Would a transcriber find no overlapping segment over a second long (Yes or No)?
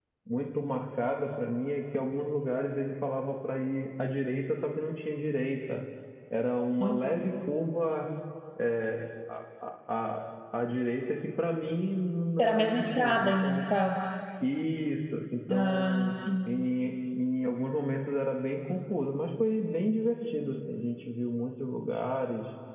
No